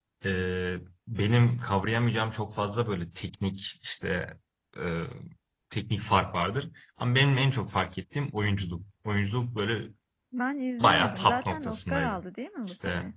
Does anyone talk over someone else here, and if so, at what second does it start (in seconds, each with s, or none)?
10.8 s